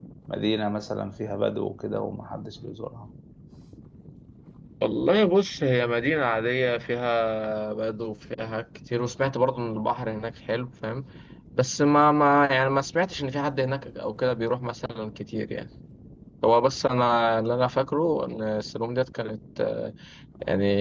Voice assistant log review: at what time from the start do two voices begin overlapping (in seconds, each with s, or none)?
none